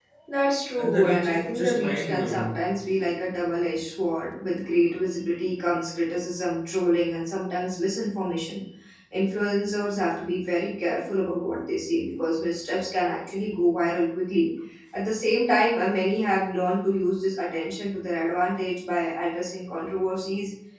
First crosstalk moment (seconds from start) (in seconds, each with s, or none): 0.8 s